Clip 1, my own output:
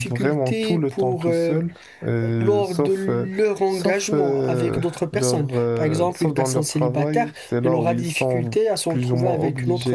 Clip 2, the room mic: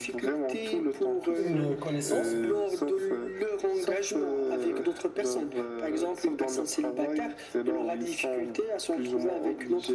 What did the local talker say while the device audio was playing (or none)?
une connaissance.